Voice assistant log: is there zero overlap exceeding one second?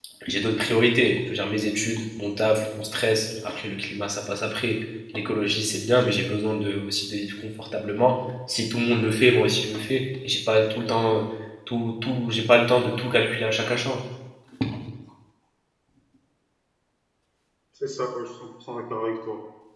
Yes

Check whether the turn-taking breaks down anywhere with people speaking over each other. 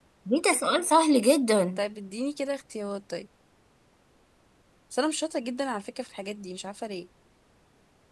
No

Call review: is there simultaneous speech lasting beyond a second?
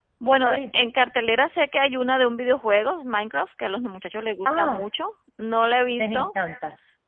No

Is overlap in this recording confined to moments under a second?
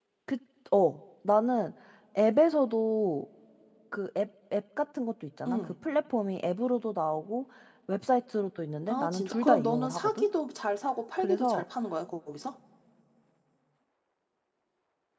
No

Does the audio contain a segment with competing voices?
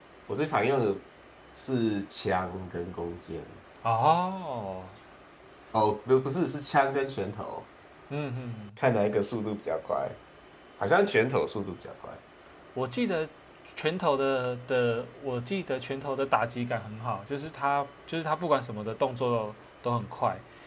No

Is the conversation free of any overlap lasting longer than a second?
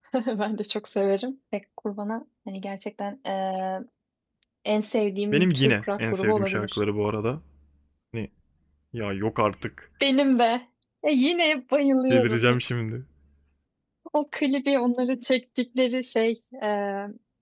No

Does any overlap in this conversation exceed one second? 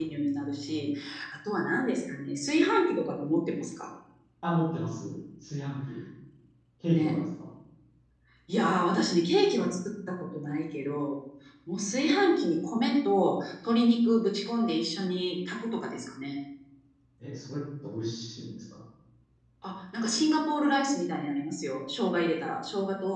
No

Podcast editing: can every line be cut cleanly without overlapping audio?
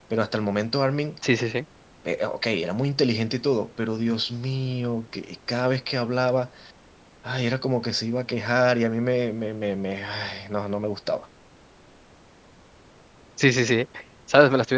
Yes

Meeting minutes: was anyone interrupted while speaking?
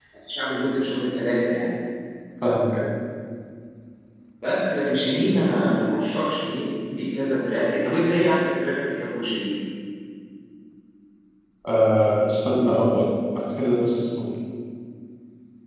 No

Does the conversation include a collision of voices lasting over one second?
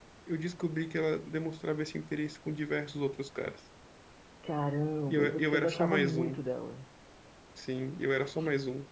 Yes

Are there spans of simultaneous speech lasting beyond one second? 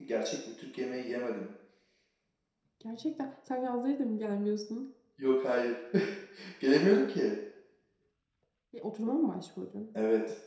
No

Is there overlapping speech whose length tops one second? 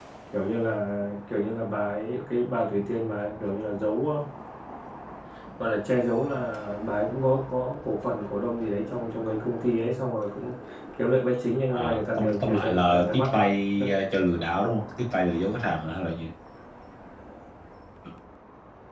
Yes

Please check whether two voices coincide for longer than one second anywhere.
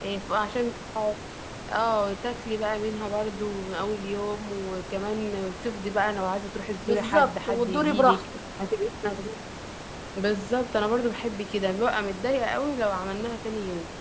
Yes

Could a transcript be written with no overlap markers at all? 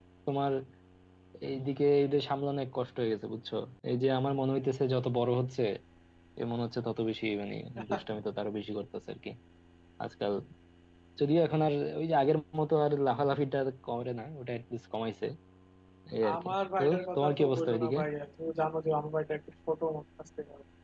No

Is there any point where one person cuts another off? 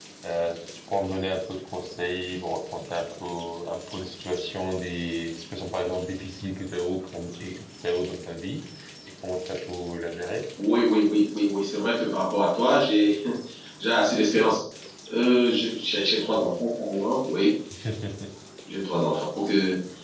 No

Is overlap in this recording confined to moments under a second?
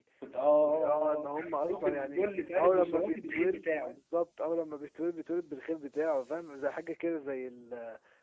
No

